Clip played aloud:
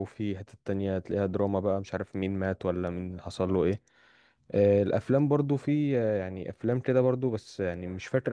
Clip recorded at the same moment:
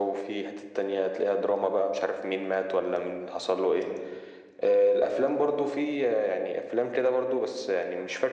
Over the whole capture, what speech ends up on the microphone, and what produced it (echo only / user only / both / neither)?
echo only